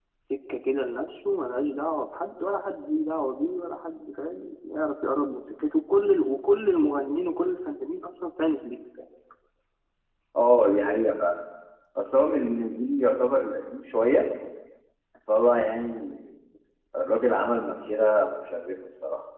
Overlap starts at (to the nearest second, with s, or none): none